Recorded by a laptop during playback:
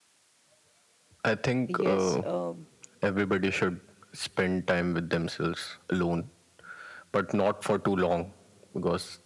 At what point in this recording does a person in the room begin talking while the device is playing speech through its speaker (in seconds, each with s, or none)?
1.7 s